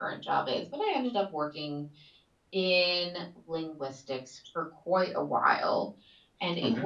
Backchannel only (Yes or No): Yes